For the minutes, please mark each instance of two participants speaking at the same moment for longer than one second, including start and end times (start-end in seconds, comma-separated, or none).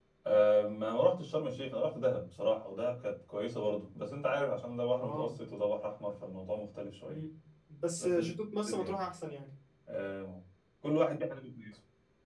none